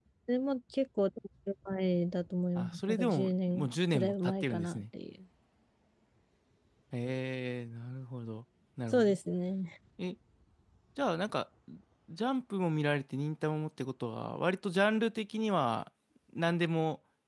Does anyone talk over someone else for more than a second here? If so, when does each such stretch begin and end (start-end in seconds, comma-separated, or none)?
2.5-4.8